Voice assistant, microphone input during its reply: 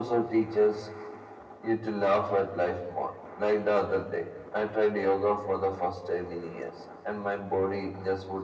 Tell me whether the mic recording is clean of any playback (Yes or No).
No